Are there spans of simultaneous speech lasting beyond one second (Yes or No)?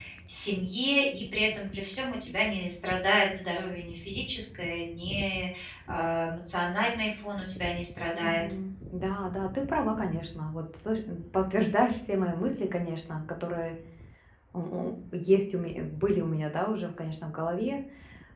No